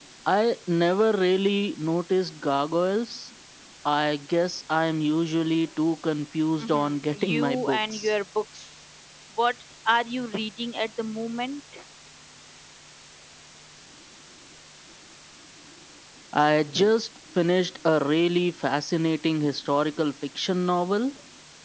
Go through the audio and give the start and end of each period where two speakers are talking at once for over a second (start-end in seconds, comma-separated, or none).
6.6-8.1